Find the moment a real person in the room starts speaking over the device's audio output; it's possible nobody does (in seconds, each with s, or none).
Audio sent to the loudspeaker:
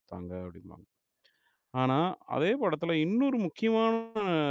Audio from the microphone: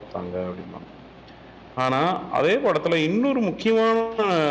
none